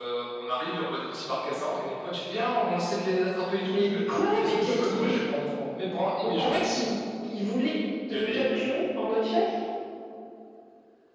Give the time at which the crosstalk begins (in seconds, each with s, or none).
3.6 s